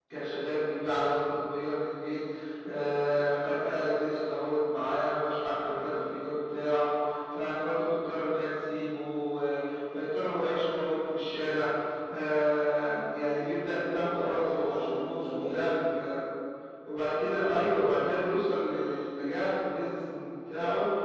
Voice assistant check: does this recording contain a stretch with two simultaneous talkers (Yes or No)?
Yes